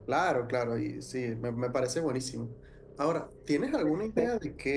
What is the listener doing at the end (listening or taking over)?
listening